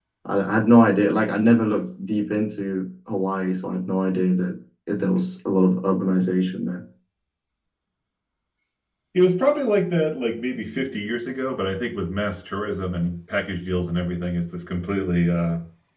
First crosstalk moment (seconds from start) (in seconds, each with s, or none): none